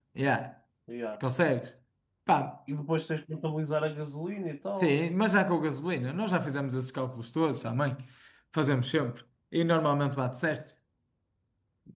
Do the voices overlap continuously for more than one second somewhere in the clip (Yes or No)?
No